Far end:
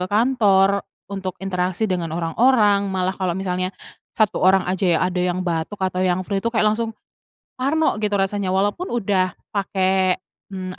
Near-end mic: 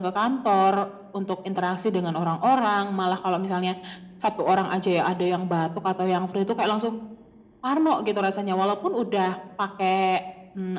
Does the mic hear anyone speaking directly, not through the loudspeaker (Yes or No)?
No